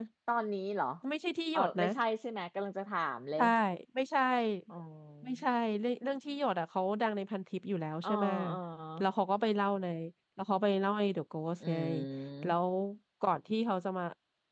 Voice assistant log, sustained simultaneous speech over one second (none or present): none